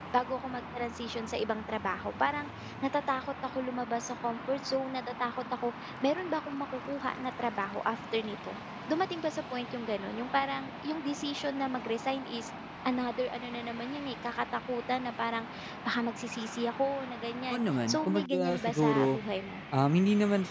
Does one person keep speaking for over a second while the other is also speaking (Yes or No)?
Yes